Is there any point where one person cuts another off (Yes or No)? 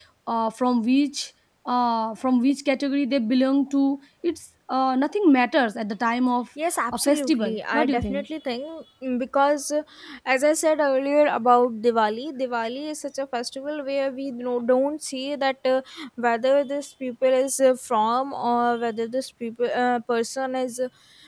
Yes